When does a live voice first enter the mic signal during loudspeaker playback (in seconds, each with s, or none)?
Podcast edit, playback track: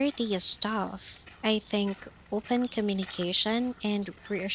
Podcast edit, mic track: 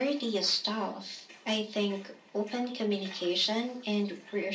none